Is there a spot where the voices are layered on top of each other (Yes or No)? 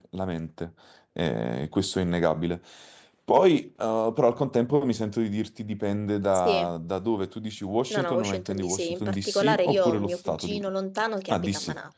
Yes